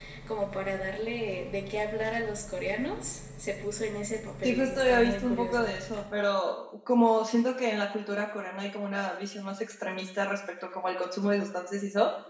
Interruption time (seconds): 4 s

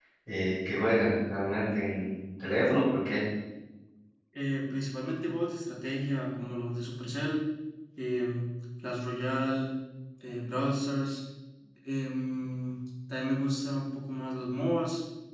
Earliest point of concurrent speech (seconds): none

